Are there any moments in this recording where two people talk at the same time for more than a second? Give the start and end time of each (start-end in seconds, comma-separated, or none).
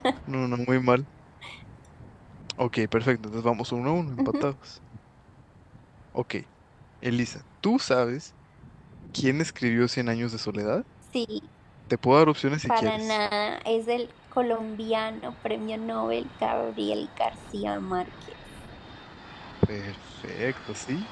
none